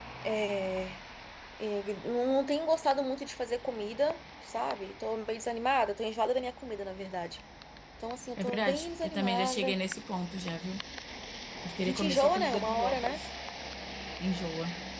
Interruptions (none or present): present